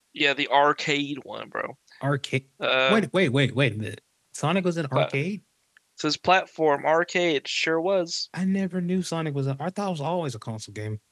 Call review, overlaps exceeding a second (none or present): none